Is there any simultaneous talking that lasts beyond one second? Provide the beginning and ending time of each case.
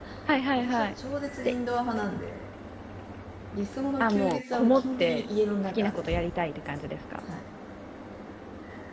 4.0-5.2

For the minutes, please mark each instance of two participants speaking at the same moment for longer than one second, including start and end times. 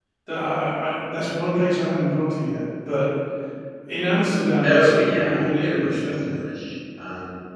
4.6-6.4

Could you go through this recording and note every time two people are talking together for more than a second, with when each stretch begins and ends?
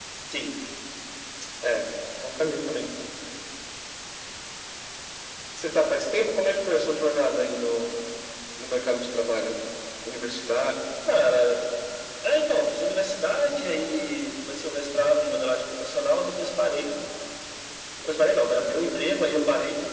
none

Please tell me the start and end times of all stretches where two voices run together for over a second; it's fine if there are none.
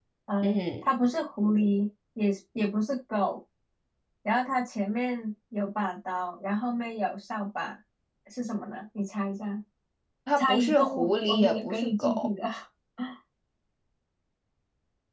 10.4-12.3

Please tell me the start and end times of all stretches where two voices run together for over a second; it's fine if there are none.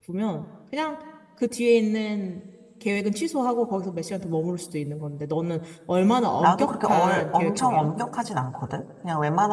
6.4-7.9

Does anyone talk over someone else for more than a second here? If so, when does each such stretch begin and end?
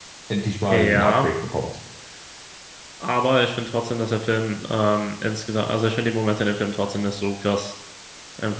none

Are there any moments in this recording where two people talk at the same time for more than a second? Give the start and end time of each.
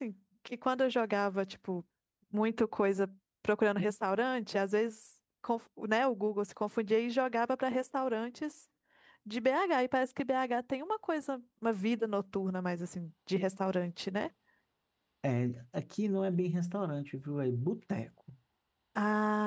none

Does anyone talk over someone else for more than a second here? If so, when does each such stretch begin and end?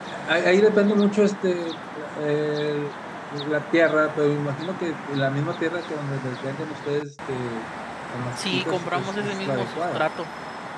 8.4-10.0

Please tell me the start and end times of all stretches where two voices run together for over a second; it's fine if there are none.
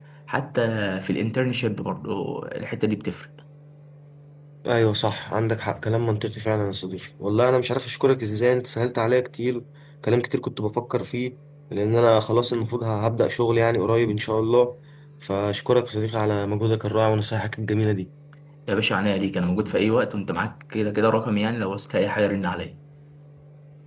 none

